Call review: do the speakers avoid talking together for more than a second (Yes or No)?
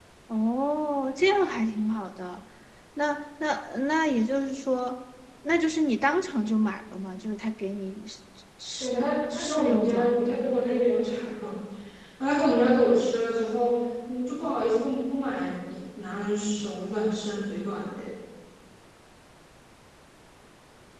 No